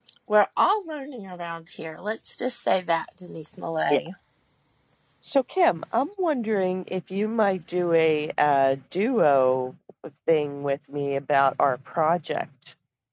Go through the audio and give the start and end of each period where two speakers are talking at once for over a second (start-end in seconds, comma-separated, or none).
none